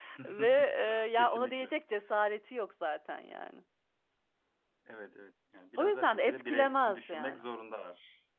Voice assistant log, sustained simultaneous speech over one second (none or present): present